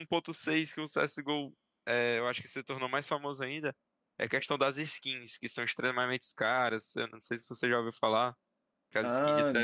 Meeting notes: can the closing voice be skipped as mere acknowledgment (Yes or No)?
Yes